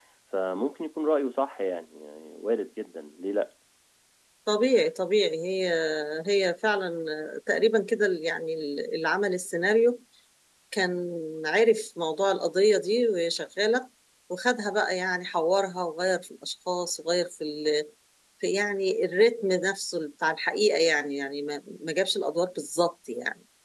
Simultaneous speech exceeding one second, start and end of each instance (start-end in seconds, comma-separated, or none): none